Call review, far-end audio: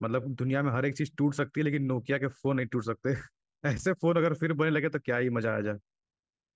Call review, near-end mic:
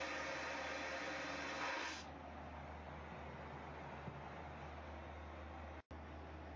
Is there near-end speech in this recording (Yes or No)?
No